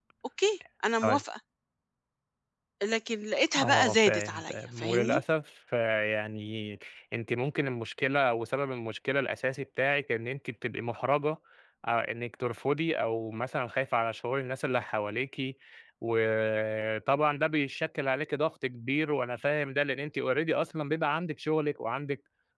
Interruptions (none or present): present